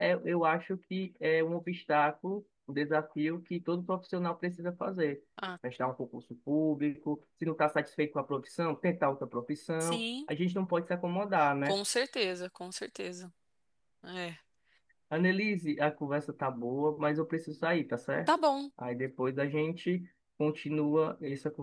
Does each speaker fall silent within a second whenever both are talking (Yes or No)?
Yes